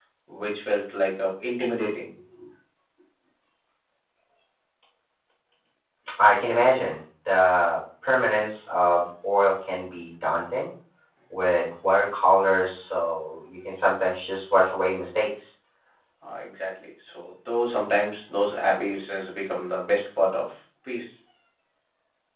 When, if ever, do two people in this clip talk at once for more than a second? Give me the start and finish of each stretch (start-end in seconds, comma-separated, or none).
none